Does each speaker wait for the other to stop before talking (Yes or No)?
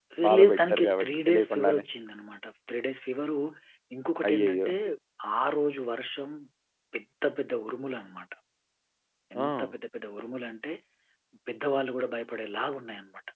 No